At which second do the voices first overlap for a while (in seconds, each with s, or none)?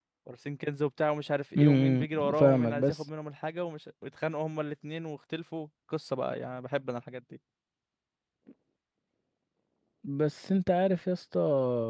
1.6 s